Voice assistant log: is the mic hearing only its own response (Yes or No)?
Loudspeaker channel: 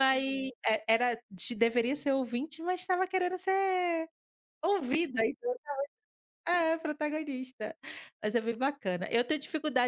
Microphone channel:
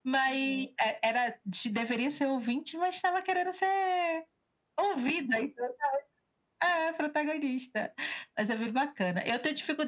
Yes